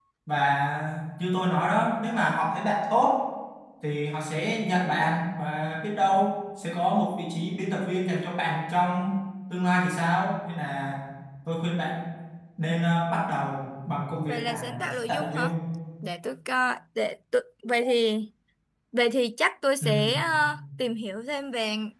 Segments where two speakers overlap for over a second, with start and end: 14.3-15.5

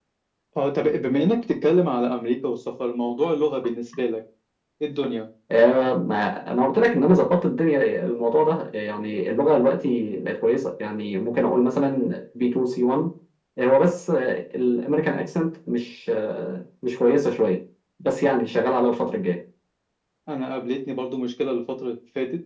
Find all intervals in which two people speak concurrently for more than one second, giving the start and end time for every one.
none

